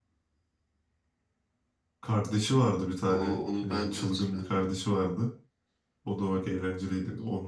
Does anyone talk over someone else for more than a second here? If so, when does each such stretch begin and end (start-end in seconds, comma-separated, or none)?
3.1-4.6